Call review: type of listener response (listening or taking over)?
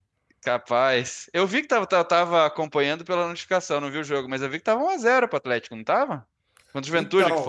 taking over